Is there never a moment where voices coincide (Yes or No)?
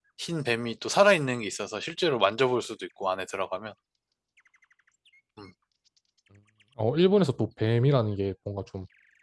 Yes